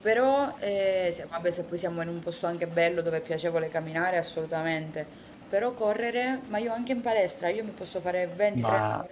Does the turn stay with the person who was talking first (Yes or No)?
Yes